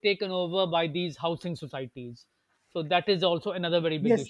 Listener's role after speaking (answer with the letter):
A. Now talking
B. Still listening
A